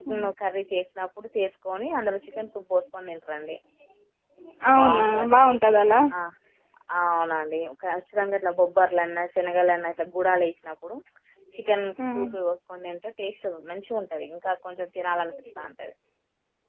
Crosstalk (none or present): present